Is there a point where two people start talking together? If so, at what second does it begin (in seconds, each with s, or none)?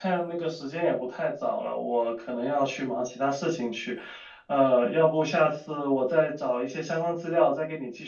none